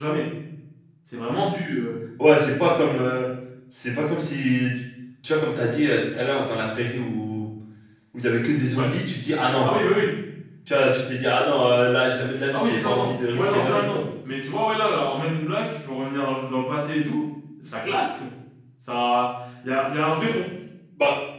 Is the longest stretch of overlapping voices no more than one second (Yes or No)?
No